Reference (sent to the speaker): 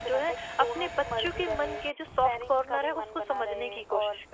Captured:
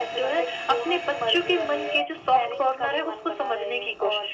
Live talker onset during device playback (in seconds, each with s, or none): none